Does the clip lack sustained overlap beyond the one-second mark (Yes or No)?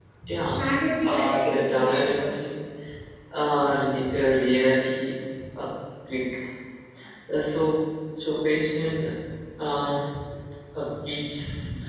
No